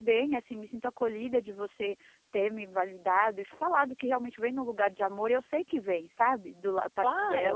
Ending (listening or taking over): taking over